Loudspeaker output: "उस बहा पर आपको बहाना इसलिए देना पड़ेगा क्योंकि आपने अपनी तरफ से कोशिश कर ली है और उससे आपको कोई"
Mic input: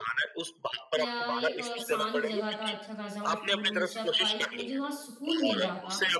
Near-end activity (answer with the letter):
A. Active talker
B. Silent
A